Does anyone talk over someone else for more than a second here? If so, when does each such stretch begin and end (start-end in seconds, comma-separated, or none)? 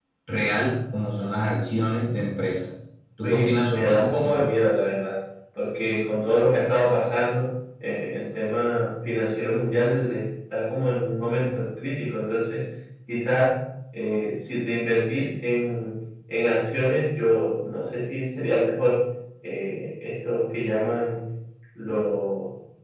3.2-4.4